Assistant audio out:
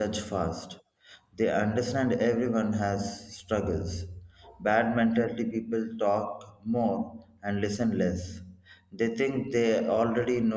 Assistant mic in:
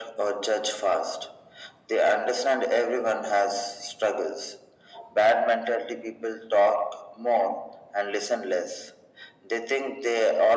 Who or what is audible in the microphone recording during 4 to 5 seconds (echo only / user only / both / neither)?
echo only